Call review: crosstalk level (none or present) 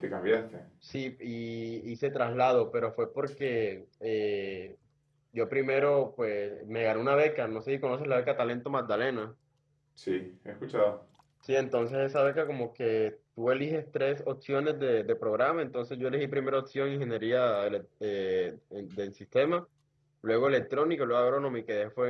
none